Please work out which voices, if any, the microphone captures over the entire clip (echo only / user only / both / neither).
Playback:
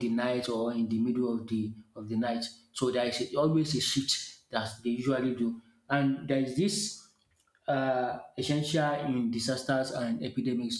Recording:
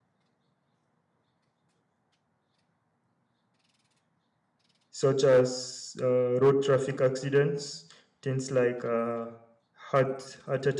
user only